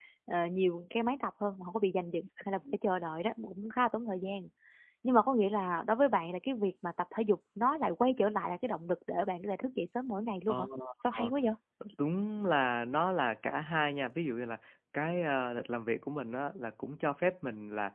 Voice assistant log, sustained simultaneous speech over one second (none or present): none